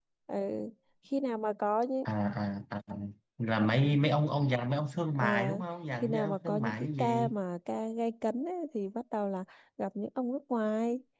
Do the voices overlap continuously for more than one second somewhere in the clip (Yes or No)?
Yes